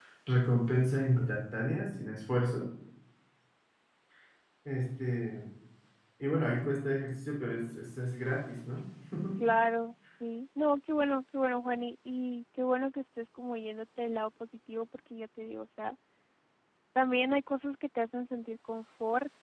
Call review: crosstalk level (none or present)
none